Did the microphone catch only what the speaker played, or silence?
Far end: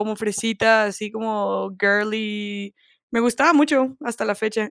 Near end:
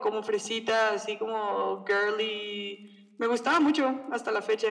Yes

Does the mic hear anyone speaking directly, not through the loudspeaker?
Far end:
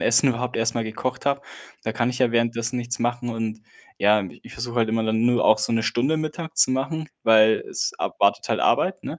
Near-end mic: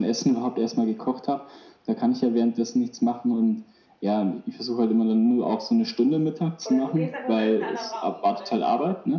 Yes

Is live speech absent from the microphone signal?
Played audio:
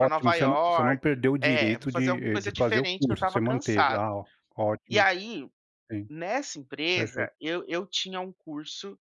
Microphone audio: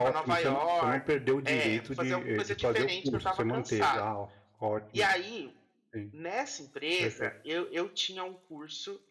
Yes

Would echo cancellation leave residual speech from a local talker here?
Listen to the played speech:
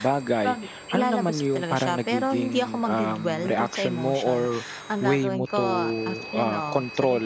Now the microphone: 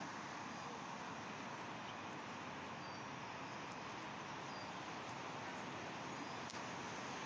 No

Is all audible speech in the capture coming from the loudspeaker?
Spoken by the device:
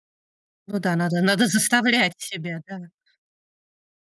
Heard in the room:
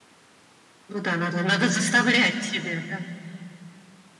Yes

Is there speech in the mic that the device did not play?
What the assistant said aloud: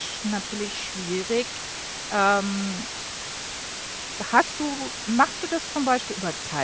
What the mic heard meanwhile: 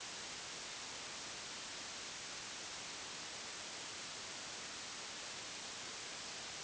No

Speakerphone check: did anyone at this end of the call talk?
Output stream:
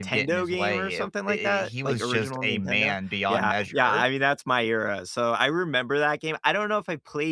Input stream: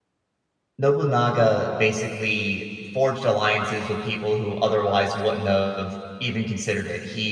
Yes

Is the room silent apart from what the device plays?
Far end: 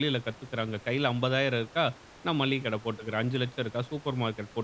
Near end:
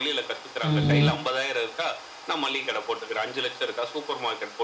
No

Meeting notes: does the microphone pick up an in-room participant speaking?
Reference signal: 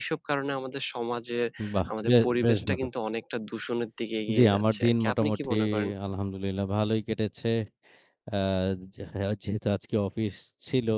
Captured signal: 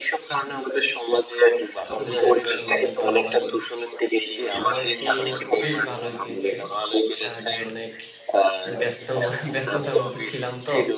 Yes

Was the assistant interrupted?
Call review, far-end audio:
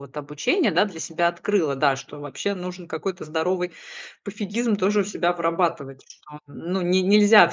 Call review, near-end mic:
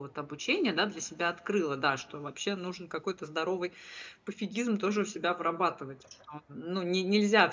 No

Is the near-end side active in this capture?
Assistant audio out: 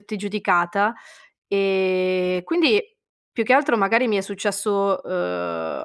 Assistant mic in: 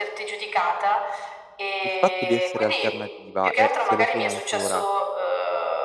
Yes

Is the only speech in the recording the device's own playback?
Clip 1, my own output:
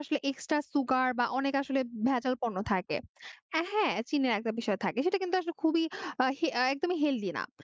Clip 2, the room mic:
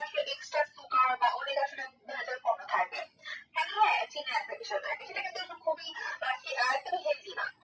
Yes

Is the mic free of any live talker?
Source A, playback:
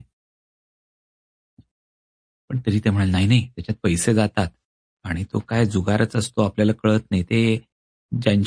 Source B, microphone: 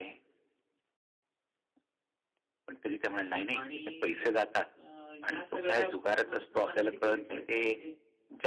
No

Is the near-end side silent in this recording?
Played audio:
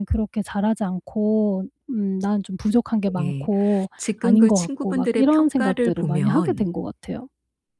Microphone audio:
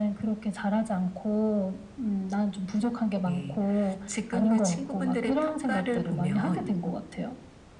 Yes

